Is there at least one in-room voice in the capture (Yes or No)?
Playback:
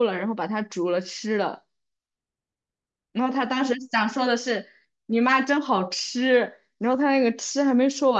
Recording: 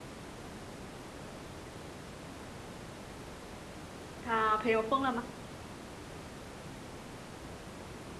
Yes